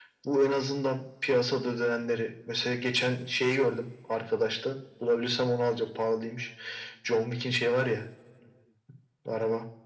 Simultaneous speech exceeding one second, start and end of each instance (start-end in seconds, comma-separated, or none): none